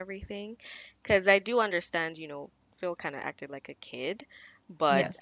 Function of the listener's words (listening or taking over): listening